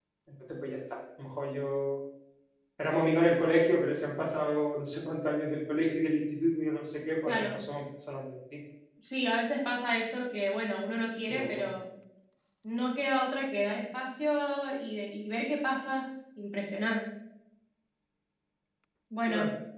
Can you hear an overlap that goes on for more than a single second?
No

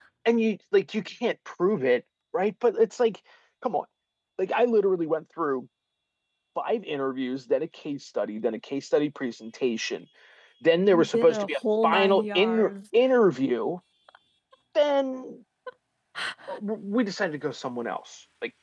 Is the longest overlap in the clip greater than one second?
Yes, from 10.8 s

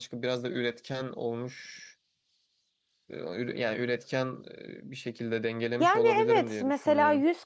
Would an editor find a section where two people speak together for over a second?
Yes, from 5.8 s

